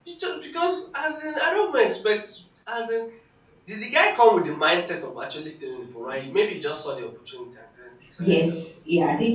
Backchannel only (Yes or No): No